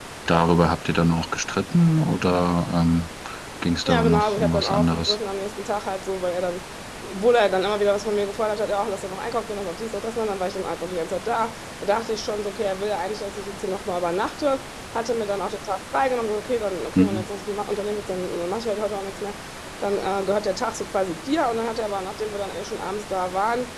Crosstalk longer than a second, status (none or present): present